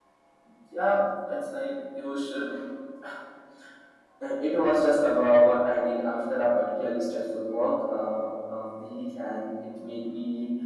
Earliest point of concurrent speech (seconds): none

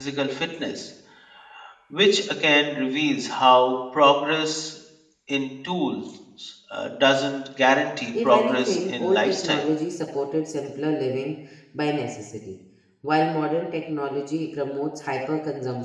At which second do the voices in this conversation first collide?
8 s

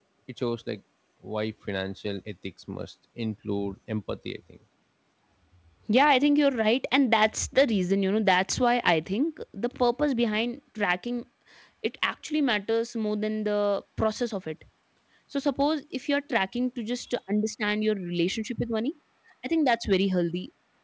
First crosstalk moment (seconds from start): none

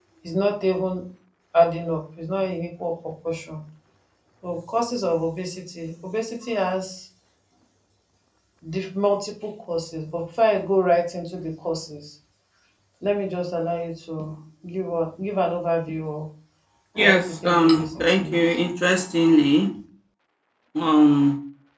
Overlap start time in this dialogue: 17 s

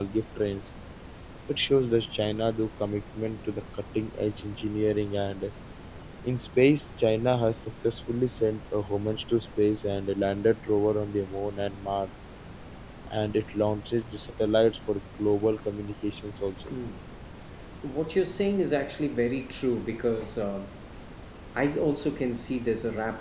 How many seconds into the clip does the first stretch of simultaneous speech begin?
none

